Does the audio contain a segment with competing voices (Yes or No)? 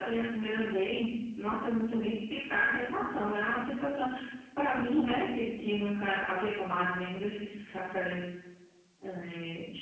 No